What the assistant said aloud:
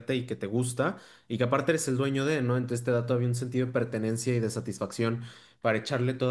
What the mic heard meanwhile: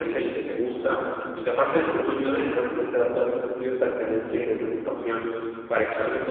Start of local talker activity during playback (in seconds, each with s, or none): none